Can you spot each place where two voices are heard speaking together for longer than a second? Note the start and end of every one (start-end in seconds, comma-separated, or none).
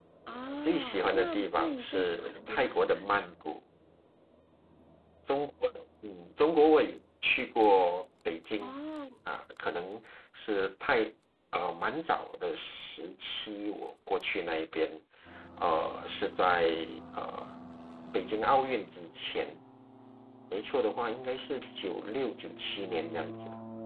0.6-3.2